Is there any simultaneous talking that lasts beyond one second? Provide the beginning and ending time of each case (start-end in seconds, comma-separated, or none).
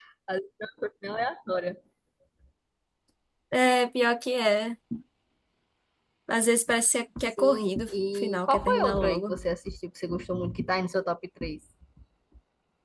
7.2-9.4